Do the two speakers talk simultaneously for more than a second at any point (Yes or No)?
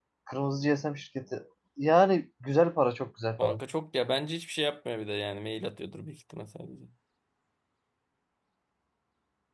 No